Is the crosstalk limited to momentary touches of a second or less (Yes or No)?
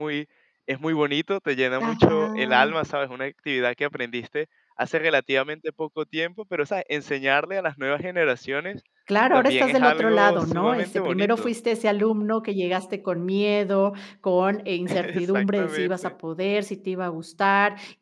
No